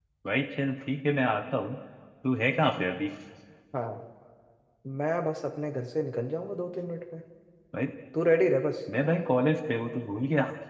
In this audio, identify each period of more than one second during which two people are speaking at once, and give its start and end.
none

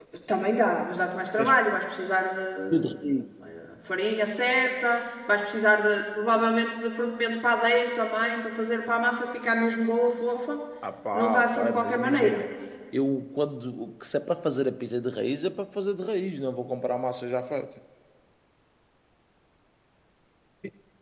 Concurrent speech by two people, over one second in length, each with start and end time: 11.1-12.4

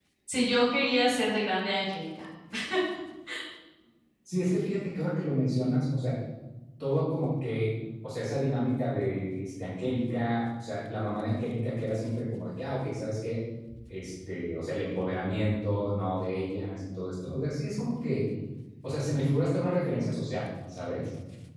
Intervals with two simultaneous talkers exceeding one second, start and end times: none

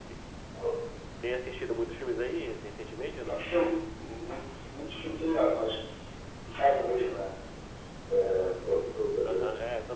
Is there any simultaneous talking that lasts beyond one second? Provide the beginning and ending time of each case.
none

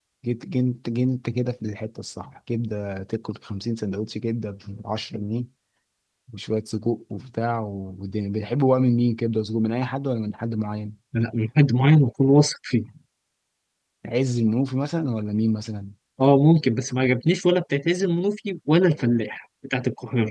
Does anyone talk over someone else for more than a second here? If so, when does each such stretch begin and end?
none

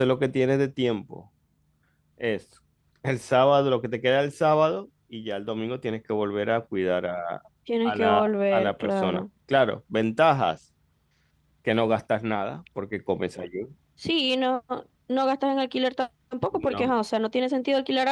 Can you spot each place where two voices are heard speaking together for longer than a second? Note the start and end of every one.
7.8-9.2

